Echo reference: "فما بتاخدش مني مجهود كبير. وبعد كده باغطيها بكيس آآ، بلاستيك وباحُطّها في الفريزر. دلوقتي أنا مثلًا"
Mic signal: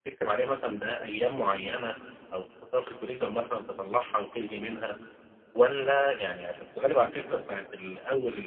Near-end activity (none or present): present